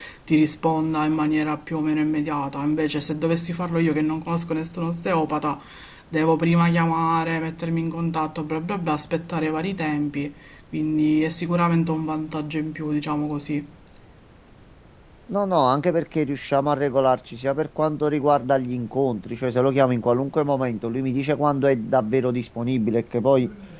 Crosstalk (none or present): none